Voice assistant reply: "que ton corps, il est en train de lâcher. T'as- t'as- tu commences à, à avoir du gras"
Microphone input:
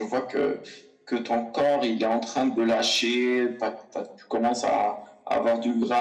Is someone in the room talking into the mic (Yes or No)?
No